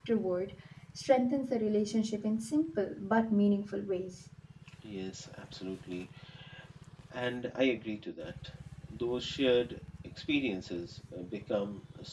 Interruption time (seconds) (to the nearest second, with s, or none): none